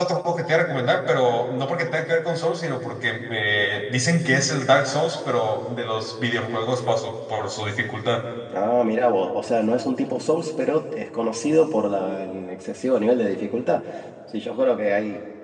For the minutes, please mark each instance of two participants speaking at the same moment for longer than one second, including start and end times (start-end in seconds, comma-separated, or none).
none